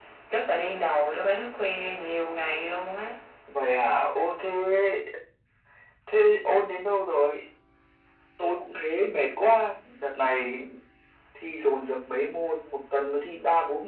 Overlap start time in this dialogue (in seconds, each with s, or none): none